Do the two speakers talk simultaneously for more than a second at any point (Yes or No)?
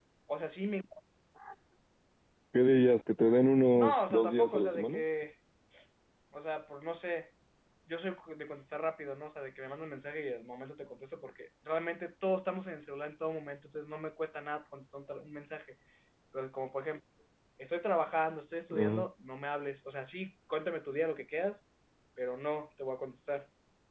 Yes